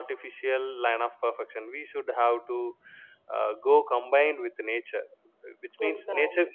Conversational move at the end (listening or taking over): listening